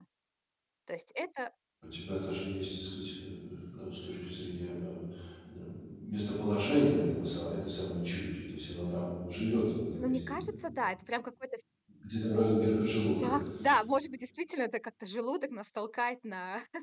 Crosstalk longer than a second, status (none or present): none